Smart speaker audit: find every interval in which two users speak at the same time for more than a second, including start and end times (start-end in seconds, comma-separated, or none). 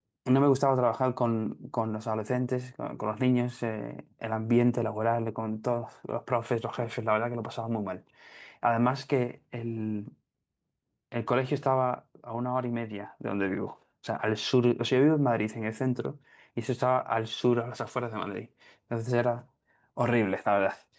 none